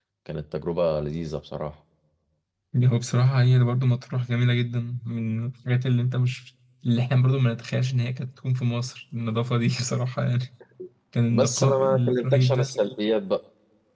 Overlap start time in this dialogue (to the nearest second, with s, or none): 11 s